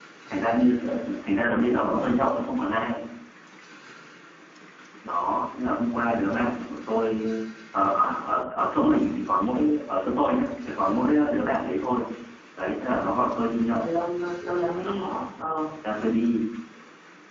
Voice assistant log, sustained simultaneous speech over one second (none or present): none